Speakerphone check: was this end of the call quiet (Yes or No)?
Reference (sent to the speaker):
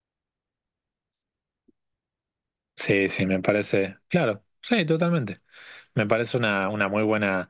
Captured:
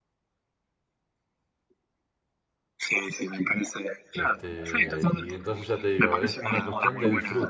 No